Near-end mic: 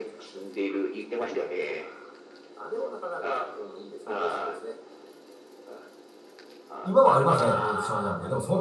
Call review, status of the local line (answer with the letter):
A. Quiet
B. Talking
B